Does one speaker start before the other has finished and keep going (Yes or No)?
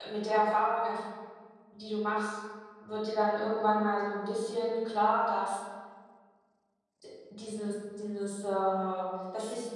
No